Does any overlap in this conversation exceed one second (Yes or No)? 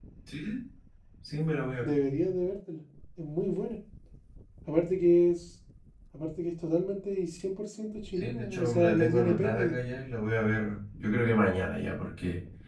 Yes